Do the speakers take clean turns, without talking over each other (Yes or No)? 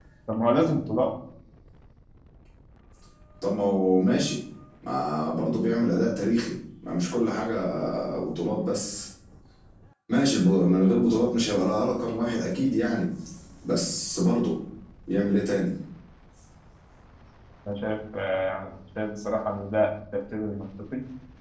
Yes